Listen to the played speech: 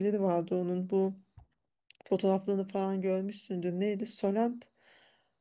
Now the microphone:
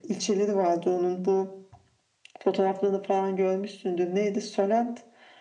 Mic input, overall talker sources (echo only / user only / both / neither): echo only